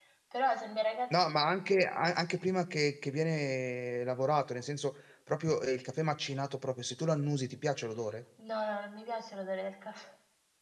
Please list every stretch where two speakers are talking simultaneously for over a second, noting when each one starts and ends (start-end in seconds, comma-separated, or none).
none